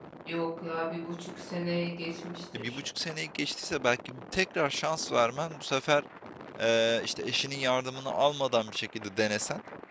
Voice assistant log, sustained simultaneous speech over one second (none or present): none